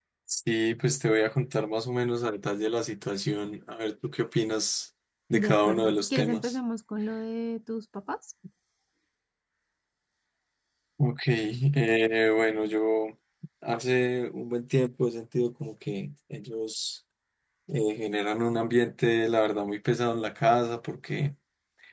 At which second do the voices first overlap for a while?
5 s

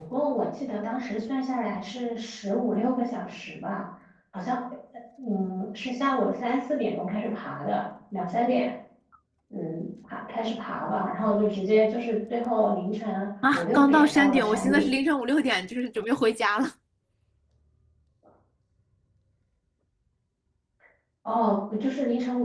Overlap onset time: 13 s

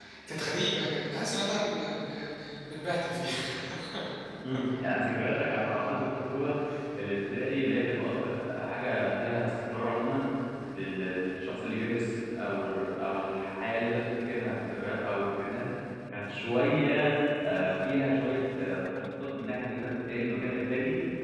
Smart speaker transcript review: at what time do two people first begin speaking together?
none

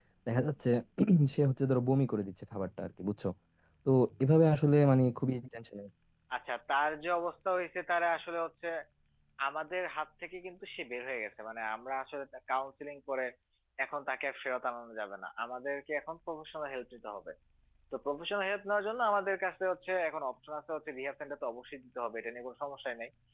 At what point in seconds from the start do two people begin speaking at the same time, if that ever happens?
none

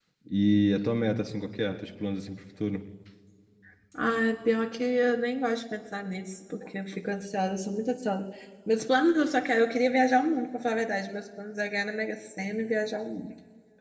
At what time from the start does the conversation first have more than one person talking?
none

